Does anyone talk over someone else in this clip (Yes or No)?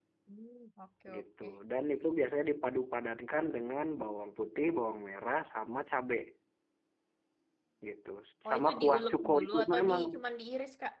Yes